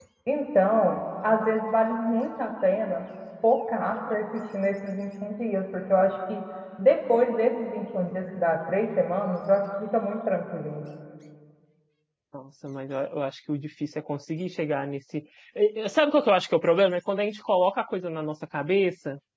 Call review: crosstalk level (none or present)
none